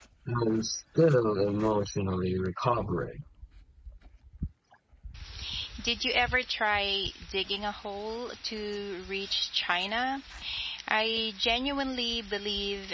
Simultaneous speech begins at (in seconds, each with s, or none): none